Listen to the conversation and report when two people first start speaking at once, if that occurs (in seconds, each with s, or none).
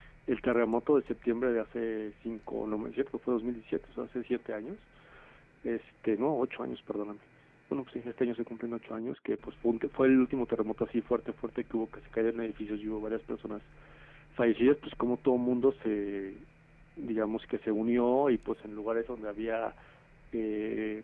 none